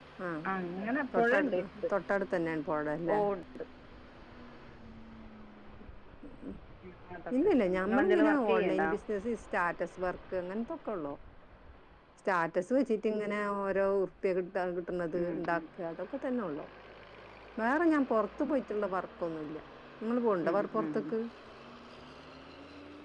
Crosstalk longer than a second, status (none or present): present